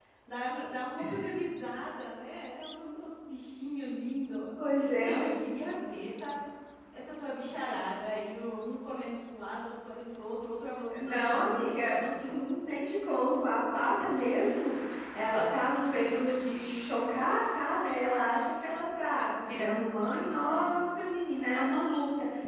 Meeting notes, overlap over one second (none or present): present